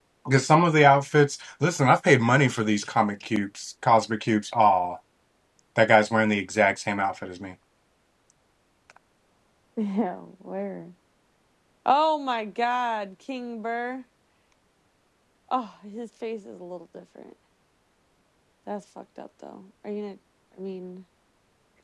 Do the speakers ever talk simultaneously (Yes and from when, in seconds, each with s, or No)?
No